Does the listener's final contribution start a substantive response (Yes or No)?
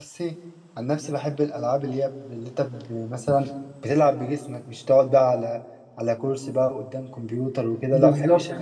Yes